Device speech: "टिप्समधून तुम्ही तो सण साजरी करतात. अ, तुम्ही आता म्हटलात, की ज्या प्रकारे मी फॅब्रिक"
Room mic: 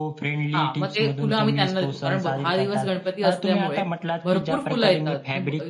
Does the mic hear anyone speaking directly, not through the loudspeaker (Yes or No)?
Yes